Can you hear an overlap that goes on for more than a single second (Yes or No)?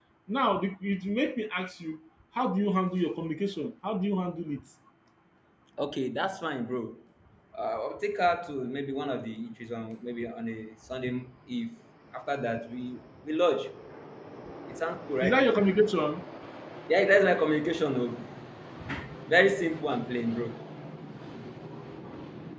No